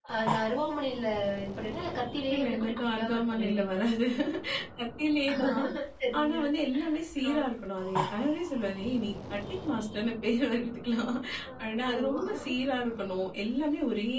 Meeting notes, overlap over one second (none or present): present